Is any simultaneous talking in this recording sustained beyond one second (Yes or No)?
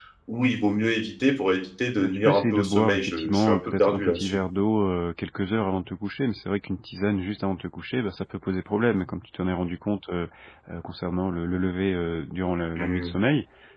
Yes